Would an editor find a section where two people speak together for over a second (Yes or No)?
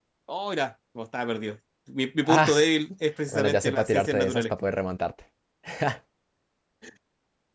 Yes